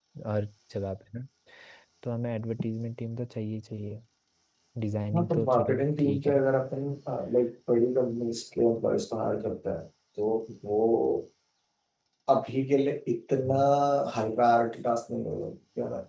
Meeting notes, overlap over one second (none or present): present